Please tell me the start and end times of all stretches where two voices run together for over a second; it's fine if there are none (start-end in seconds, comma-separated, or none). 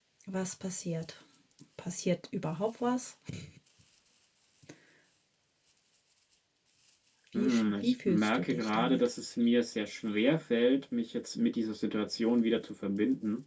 7.3-9.1